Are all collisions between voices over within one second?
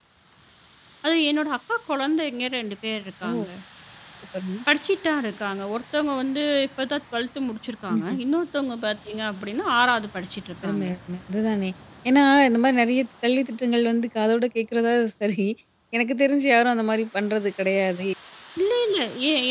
Yes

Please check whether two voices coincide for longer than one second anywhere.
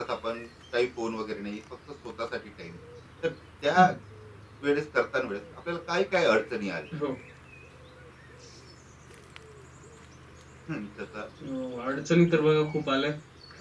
No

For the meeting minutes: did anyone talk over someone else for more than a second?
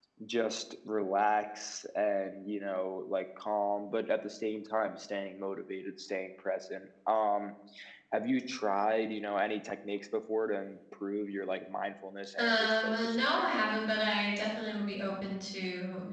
Yes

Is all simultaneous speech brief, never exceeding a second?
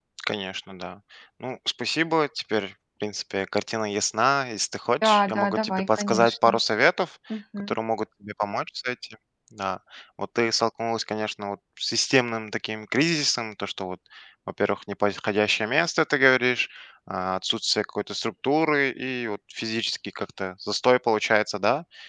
No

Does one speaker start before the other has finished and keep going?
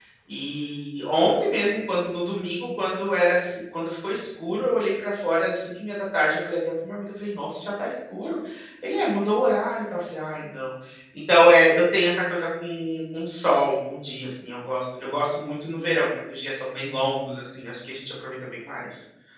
No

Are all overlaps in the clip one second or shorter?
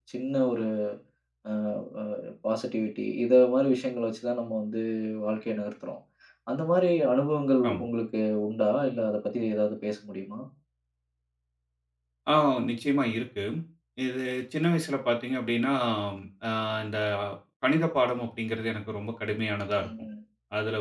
Yes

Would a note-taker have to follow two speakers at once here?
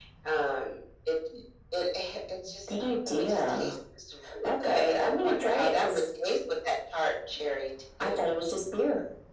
Yes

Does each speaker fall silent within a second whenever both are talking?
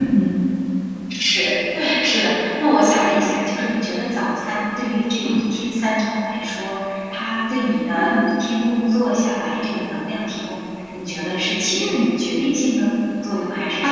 Yes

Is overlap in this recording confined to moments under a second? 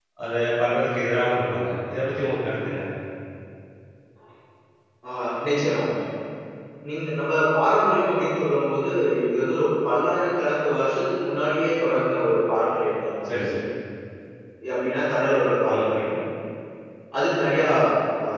Yes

